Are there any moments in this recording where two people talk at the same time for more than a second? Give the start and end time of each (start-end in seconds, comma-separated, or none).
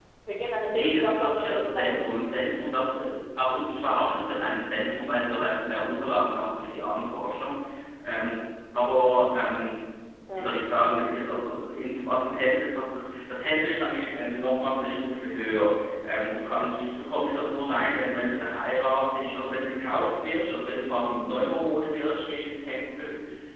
0.7-2.1